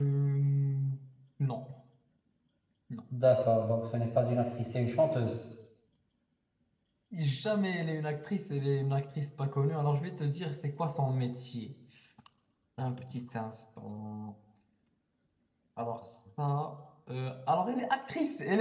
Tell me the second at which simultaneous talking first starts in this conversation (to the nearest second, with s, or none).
none